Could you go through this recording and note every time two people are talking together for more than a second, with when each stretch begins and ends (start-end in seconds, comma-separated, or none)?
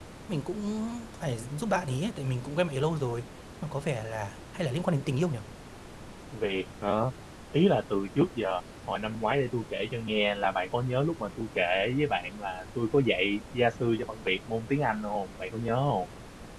none